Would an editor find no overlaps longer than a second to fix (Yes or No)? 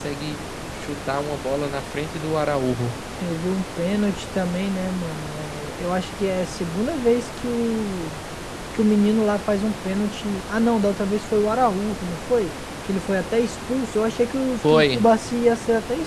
Yes